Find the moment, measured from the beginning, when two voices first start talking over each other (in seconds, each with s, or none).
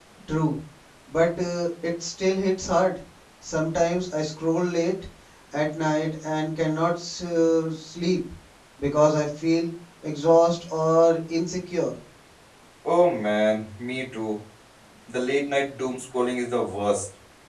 none